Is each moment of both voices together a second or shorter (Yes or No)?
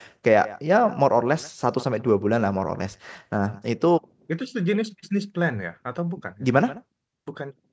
Yes